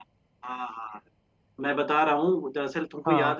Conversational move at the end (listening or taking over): listening